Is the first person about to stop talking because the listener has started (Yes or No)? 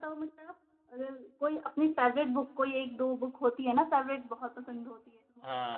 Yes